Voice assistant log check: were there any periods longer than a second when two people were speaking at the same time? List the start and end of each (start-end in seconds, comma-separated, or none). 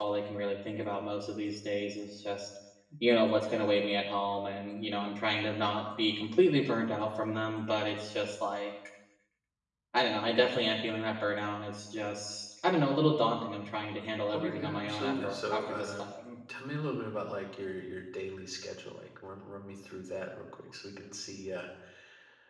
14.4-16.0